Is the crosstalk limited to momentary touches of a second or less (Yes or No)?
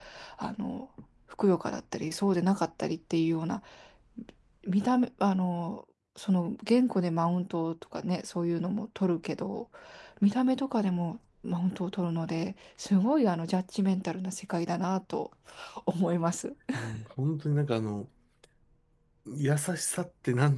Yes